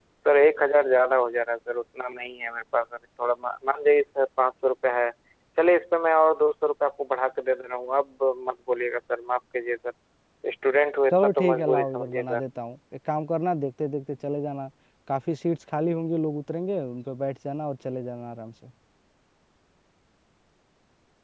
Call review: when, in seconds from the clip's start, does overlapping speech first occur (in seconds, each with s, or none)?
11.1 s